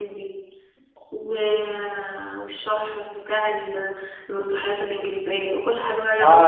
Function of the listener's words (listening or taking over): taking over